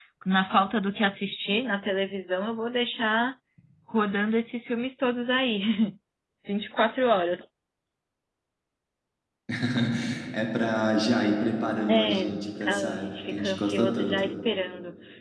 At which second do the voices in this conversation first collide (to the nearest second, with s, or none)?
12 s